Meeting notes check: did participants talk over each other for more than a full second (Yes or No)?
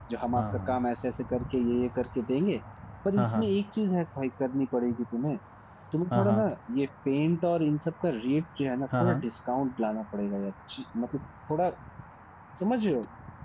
No